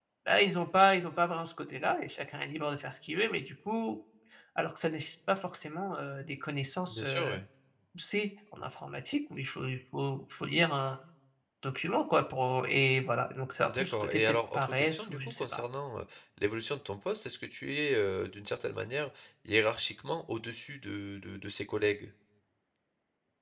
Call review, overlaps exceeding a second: present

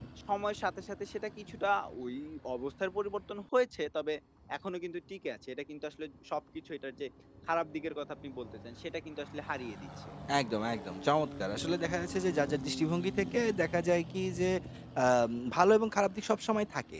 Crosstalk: none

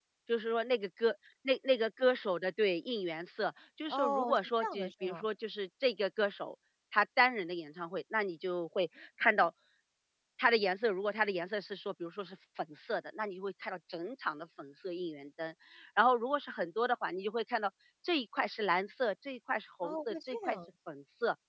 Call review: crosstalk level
present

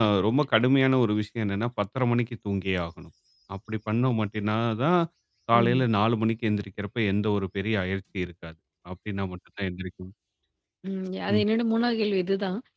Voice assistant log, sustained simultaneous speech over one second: none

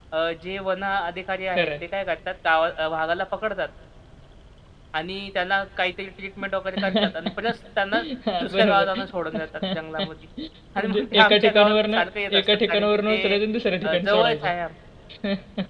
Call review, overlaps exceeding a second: present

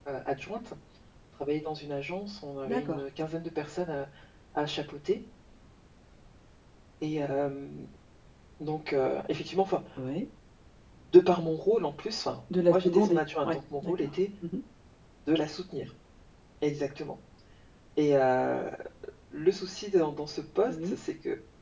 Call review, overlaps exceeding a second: present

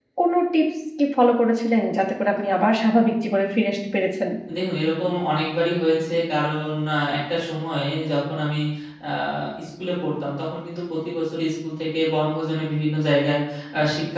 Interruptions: none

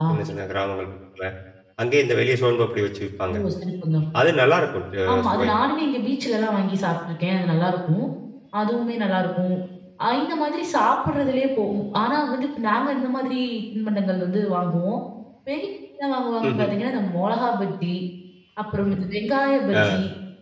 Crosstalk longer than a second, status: none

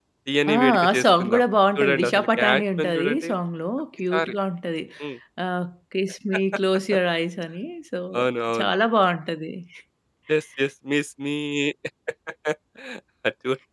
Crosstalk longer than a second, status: present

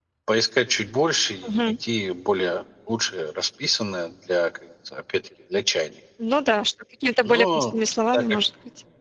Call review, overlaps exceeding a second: none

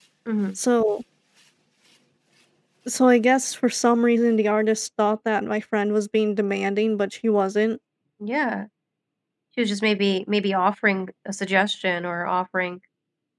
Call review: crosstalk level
none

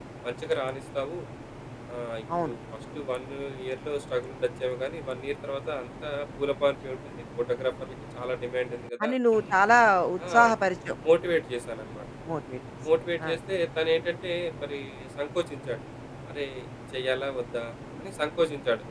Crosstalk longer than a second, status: none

